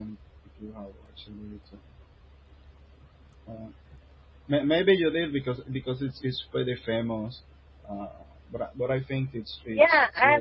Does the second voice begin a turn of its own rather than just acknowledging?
Yes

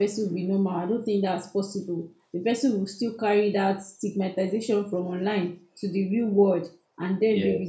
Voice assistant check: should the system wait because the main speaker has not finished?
Yes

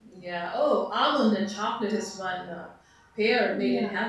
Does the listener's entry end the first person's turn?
No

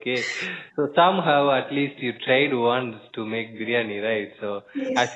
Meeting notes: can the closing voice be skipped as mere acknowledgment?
Yes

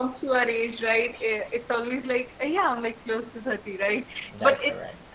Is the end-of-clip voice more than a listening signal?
No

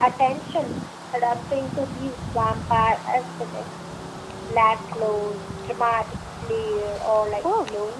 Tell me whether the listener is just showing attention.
No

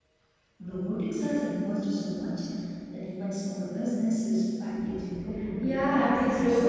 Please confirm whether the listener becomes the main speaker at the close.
Yes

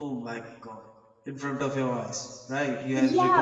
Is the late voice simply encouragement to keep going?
No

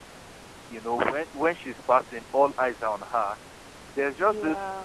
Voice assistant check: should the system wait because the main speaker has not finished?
Yes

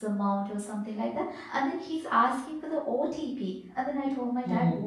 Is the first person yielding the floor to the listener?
No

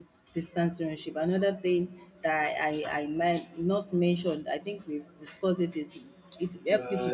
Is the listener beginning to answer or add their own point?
Yes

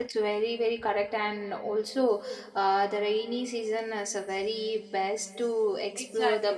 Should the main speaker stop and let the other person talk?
Yes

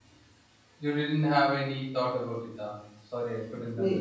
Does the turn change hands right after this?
Yes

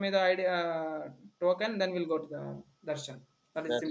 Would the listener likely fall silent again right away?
No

